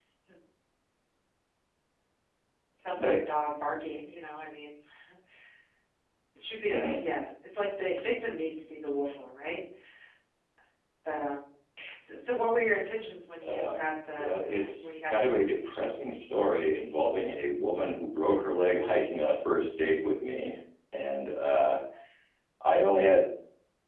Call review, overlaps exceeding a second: present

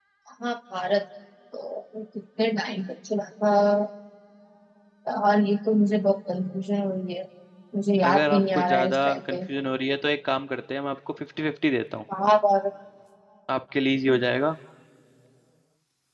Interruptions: present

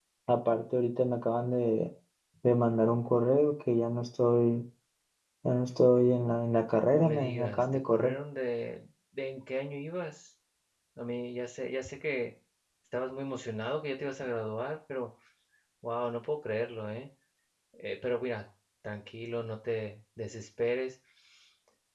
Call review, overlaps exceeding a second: present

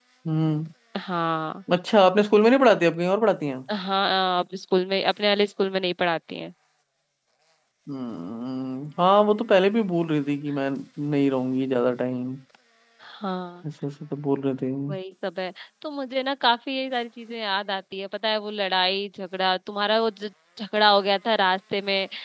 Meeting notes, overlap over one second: none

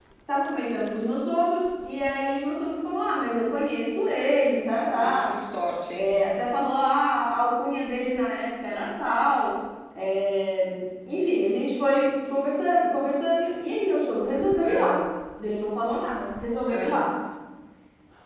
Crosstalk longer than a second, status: none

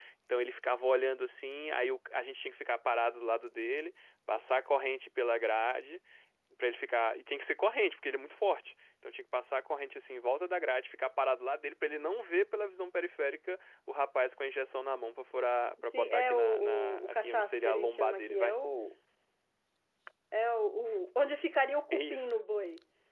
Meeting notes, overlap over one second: present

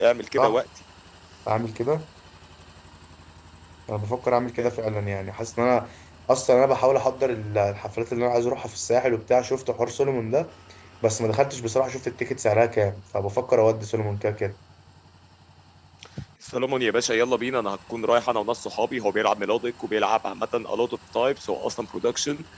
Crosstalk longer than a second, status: none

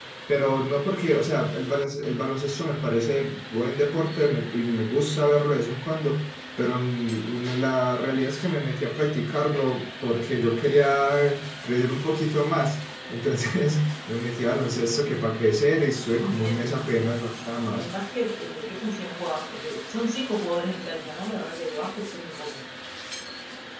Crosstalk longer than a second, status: present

